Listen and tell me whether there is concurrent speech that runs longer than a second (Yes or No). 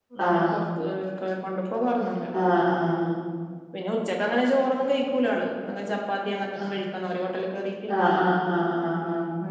No